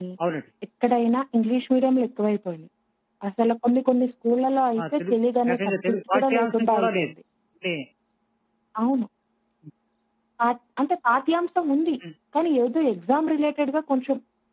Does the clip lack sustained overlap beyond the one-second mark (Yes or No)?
No